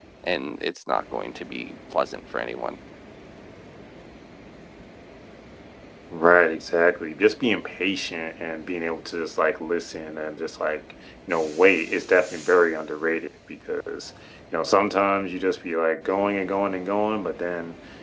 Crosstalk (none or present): none